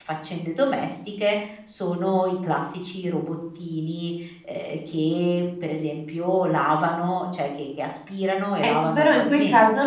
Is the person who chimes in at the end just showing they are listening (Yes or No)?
No